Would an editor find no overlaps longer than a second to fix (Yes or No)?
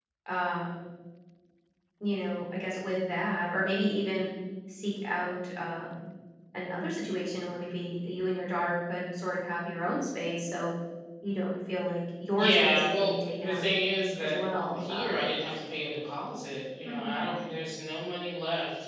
No